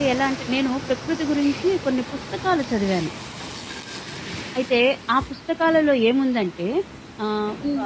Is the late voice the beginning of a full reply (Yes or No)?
Yes